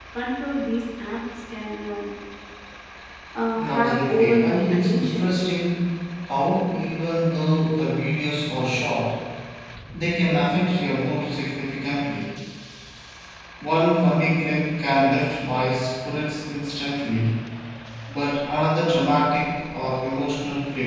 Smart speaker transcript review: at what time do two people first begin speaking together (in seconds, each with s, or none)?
3.7 s